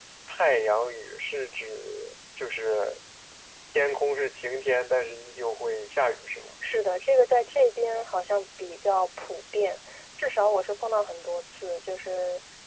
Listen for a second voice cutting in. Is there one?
No

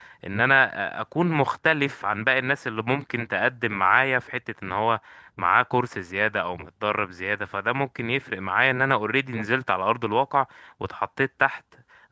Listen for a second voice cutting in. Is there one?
No

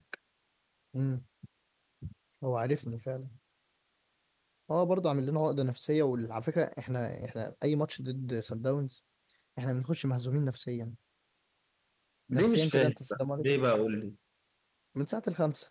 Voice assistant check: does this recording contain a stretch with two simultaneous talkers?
Yes, from 12.3 s

